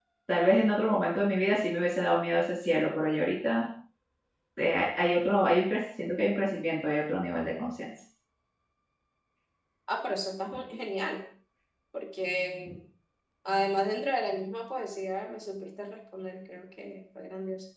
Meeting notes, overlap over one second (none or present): none